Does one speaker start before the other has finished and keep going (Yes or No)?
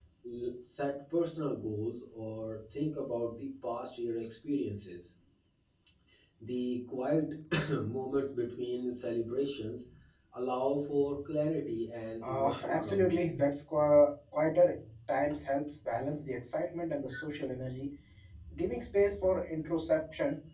Yes